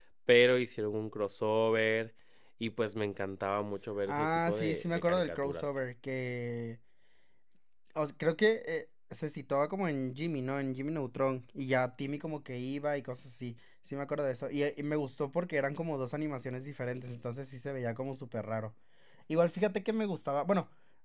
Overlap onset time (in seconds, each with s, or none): 4.1 s